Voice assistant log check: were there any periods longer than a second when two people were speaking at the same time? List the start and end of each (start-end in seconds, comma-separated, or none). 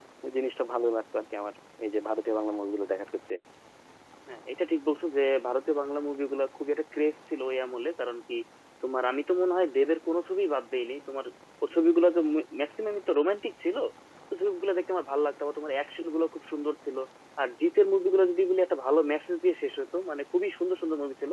none